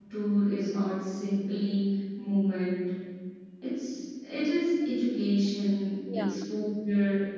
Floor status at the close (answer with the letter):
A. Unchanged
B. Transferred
A